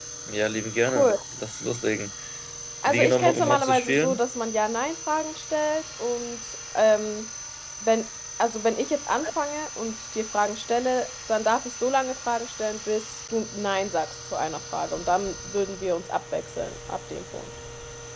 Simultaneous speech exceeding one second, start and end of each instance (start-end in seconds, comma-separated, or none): 2.9-4.2